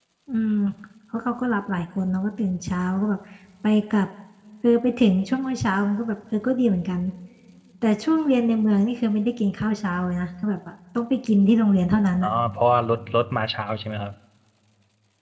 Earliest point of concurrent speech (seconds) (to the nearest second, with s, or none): none